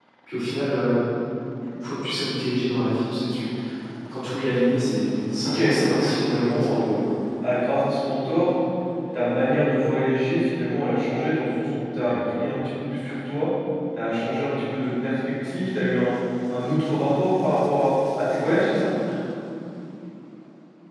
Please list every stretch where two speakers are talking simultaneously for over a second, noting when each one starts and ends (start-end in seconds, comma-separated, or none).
5.4-6.8